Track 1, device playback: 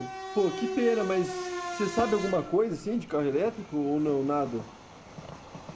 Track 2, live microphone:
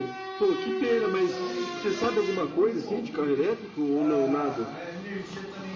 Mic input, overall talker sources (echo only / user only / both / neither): both